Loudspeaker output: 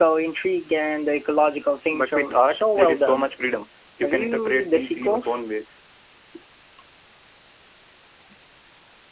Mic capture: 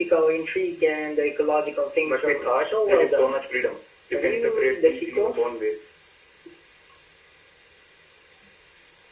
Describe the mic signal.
echo only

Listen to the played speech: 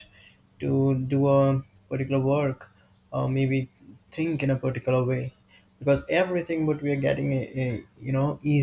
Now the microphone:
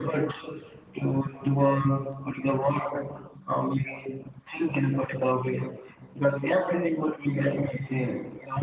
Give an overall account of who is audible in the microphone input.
echo only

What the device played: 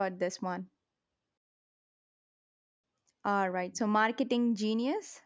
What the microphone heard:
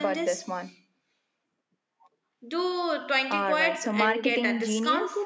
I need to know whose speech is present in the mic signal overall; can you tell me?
both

